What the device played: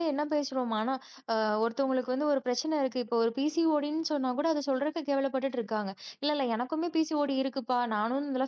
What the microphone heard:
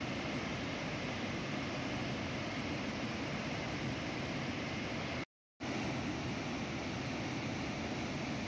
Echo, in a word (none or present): none